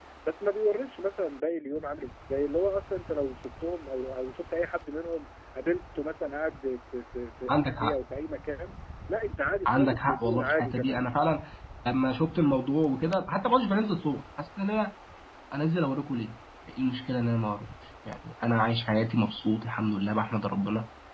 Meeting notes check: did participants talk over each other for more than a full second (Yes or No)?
Yes